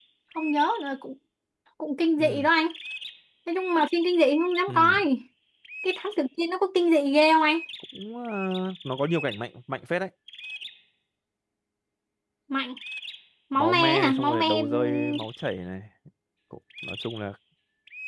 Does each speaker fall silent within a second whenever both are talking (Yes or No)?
No